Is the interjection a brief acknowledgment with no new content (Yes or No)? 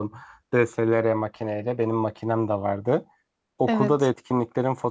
Yes